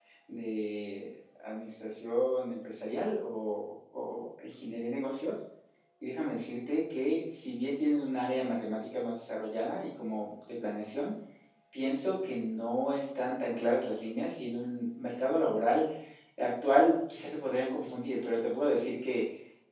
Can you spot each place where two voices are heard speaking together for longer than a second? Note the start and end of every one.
none

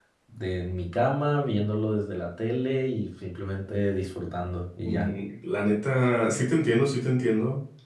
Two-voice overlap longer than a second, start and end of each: none

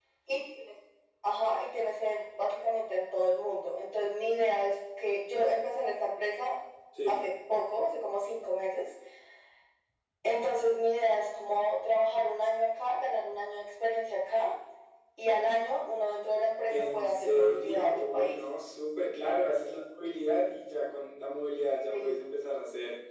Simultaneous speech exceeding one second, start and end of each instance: 16.7-18.4

